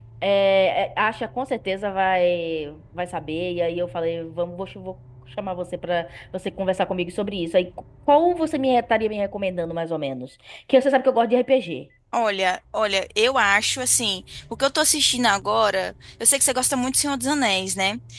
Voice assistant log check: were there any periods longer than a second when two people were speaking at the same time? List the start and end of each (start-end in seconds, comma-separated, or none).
none